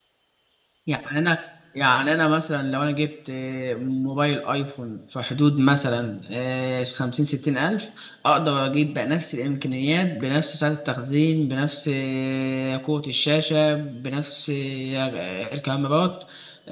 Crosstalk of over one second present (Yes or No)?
No